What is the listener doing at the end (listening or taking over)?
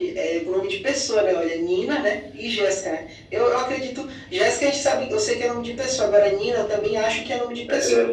taking over